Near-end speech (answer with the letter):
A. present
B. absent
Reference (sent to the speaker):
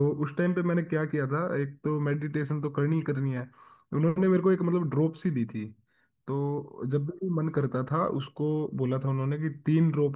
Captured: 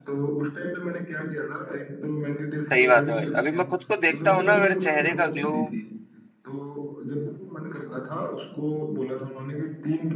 A